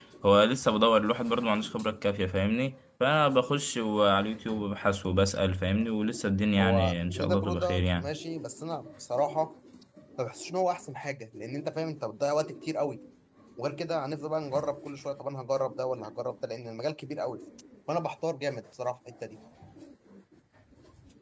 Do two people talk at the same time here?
Yes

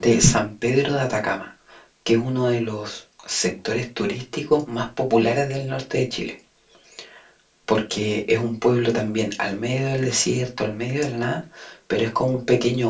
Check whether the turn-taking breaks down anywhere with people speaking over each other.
No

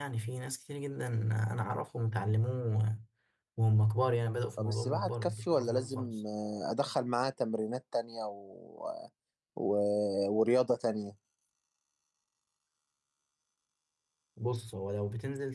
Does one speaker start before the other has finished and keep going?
Yes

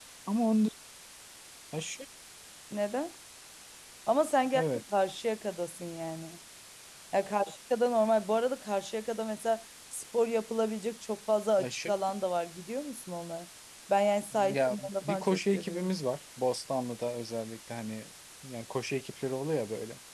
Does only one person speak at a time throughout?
No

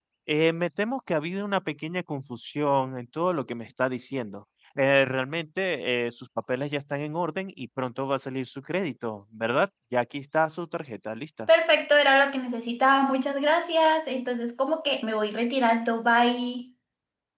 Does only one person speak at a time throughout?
Yes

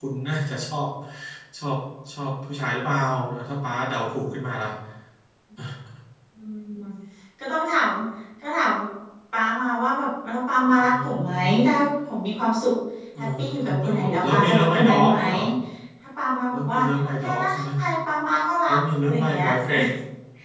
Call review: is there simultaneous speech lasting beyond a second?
Yes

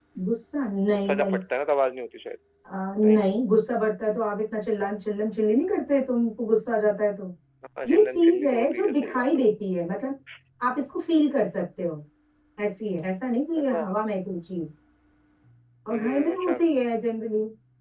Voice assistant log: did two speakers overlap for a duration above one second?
Yes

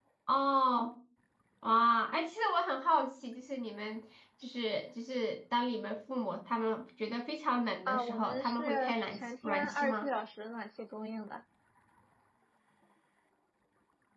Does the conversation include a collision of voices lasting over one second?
Yes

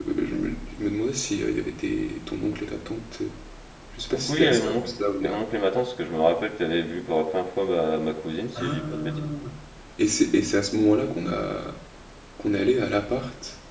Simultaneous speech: Yes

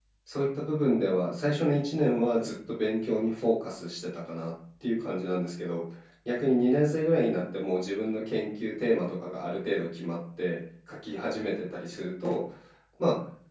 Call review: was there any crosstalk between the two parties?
No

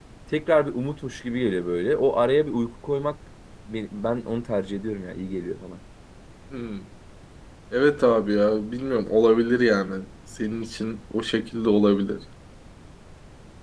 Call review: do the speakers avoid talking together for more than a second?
Yes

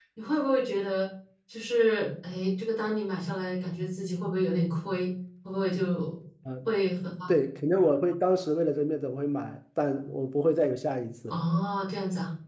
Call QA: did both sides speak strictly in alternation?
Yes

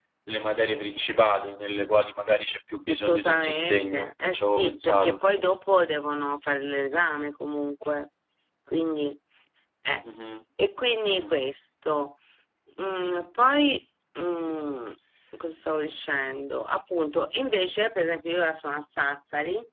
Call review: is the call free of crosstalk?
No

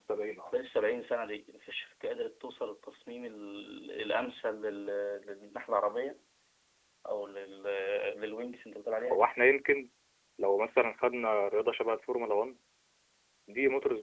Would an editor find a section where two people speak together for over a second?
No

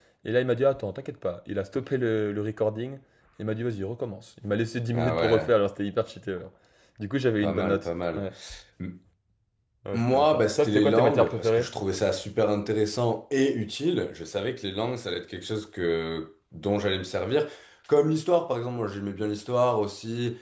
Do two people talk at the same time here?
Yes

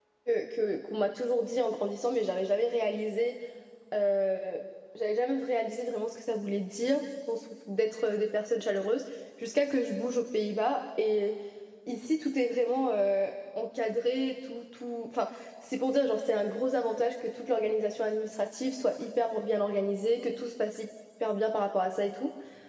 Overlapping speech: No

